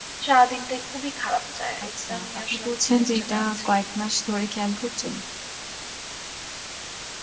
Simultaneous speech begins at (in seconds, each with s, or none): 1.8 s